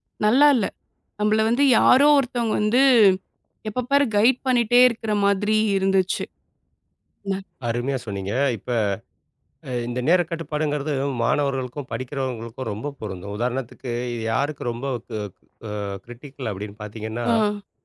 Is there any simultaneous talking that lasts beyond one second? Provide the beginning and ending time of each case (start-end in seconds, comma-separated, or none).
none